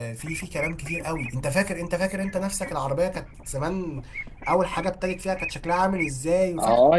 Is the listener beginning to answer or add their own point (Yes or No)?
Yes